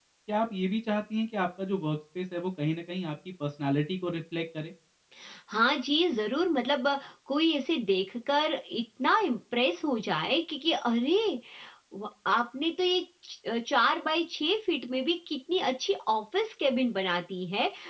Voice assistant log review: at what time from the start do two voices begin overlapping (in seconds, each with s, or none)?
none